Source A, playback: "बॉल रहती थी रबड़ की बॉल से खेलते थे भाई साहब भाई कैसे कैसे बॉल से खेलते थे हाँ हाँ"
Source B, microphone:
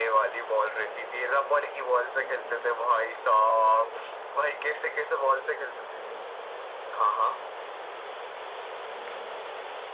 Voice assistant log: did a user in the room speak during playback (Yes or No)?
No